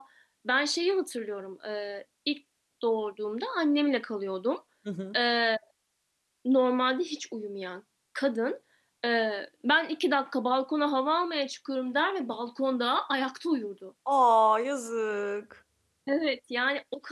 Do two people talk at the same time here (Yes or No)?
No